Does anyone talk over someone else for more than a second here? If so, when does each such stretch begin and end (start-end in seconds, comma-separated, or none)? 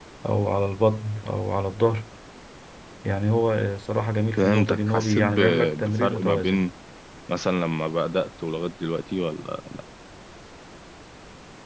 4.4-6.6